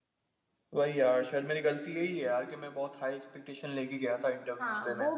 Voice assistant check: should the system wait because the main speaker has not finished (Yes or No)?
No